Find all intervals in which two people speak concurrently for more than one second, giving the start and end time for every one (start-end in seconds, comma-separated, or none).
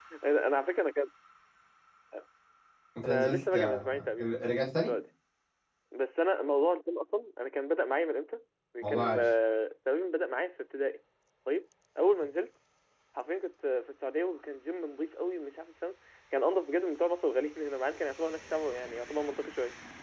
3.0-4.3